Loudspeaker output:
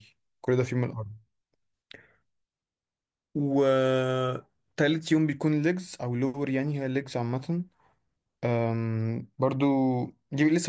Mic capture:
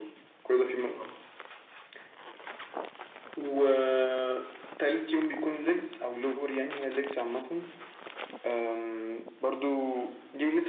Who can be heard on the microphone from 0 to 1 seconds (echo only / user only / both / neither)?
echo only